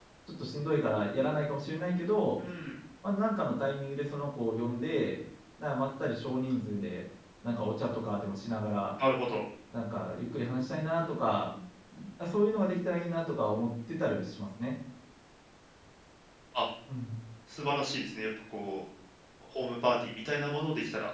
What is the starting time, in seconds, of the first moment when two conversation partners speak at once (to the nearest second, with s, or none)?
none